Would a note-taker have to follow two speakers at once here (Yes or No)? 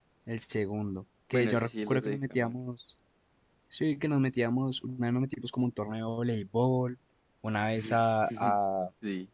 Yes